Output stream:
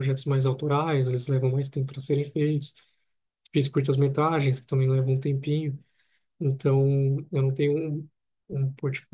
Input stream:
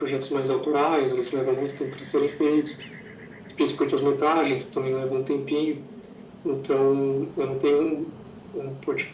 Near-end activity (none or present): none